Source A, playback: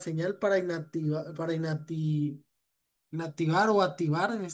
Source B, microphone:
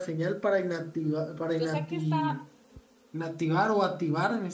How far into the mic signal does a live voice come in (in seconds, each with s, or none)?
1.6 s